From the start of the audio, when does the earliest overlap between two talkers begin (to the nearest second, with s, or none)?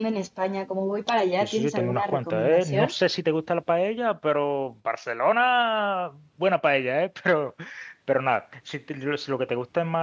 1 s